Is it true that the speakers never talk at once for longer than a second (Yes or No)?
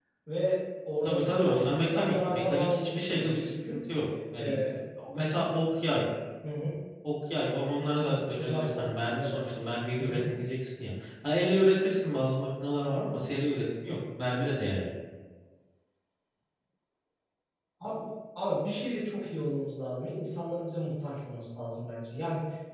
No